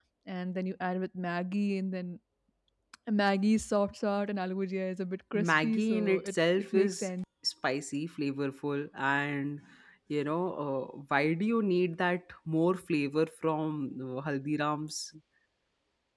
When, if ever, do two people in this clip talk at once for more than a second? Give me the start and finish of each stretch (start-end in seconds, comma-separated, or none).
5.3-7.1